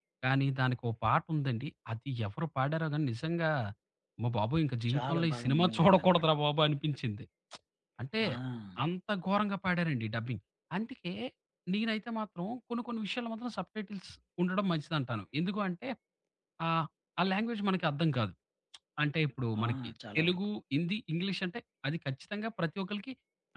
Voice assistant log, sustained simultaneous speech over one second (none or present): present